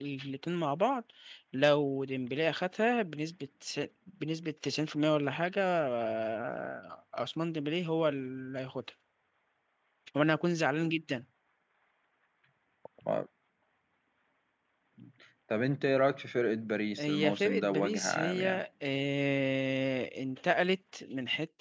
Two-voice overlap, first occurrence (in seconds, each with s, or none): 17.0 s